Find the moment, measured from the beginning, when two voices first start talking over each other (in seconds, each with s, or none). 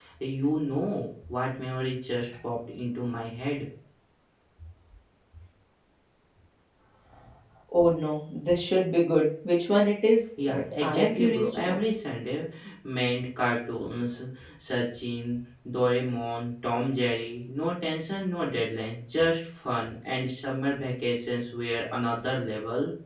10.4 s